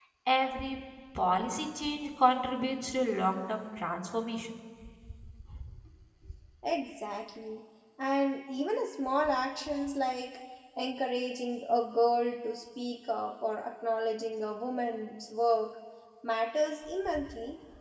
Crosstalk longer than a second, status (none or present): none